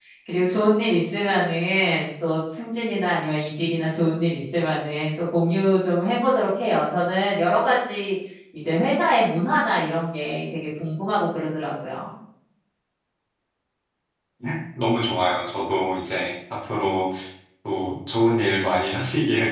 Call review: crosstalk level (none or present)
none